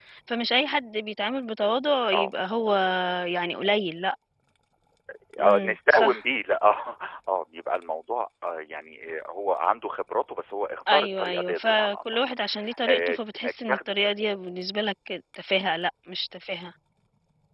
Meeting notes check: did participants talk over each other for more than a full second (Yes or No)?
Yes